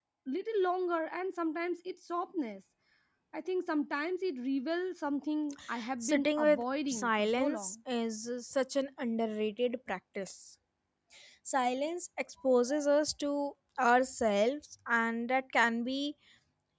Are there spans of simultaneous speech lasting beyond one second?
Yes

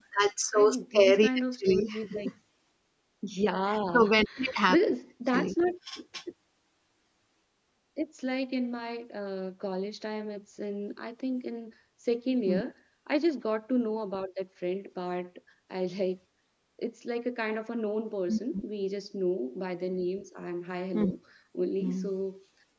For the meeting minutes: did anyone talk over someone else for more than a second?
Yes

